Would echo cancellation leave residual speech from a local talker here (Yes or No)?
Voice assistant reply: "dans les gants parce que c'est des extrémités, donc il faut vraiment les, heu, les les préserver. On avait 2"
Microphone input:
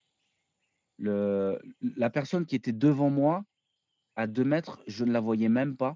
Yes